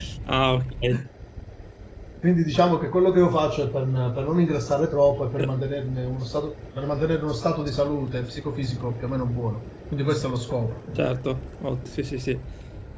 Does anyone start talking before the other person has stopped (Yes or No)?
No